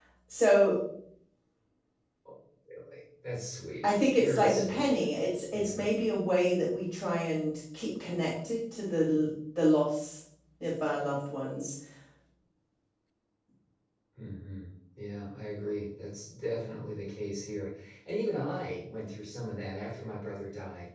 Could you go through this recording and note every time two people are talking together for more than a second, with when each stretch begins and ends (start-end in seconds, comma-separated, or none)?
3.8-5.0